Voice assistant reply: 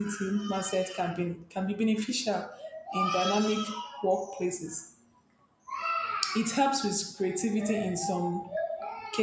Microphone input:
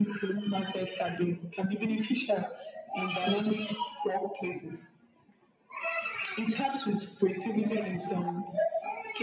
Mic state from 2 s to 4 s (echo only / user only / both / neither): echo only